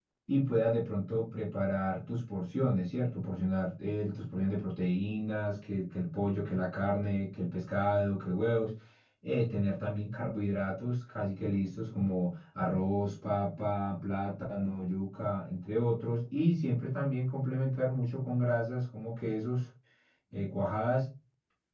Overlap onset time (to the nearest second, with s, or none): none